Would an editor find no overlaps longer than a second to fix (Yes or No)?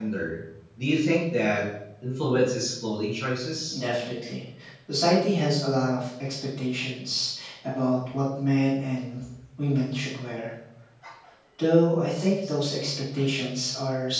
Yes